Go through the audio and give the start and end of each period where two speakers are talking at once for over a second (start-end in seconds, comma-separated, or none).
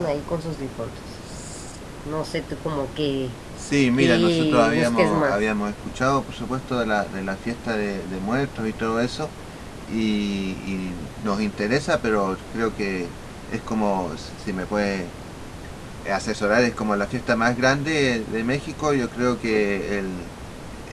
4.0-5.4